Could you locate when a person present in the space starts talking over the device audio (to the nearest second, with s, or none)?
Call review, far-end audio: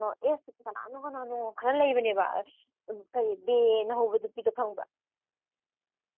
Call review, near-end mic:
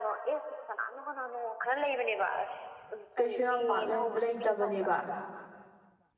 3 s